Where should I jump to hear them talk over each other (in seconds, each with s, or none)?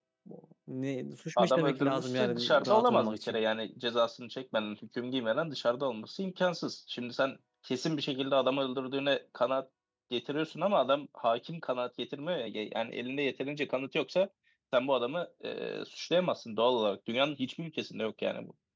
1.4 s